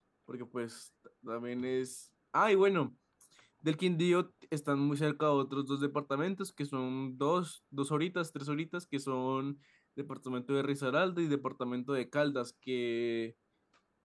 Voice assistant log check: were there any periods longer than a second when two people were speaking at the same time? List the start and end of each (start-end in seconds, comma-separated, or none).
none